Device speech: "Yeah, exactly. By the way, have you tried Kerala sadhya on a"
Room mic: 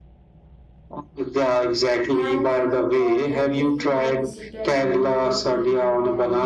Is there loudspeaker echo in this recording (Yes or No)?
Yes